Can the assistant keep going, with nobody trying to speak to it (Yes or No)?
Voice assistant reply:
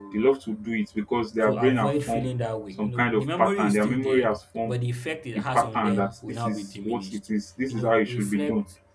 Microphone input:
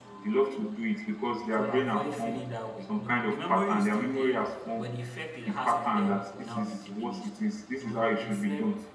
Yes